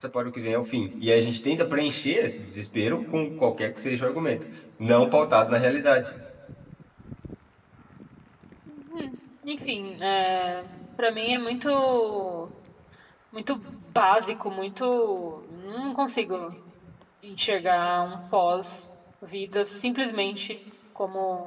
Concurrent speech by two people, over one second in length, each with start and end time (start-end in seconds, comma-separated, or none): none